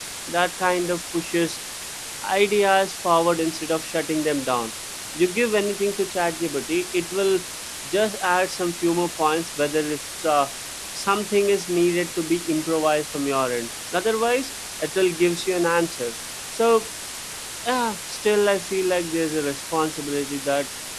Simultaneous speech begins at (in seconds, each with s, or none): none